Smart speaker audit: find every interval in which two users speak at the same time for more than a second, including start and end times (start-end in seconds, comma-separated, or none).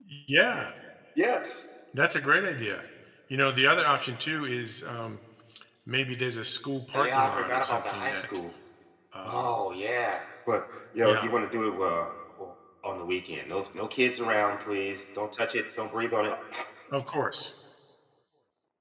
7.0-8.2